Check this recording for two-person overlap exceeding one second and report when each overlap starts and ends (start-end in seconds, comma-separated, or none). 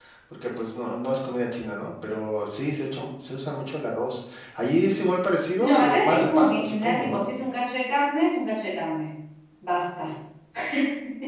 5.6-7.2